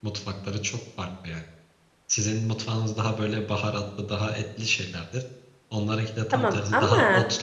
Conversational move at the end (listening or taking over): listening